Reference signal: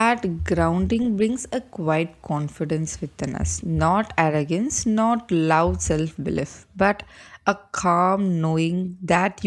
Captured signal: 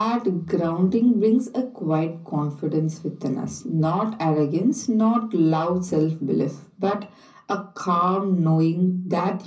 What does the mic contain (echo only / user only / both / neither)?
echo only